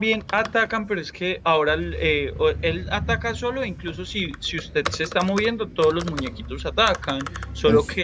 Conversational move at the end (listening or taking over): listening